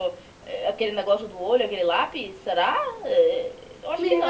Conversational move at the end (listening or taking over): taking over